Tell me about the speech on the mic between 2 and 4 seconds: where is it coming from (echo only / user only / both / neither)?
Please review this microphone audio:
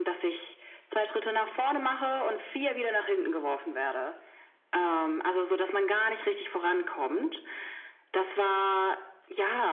echo only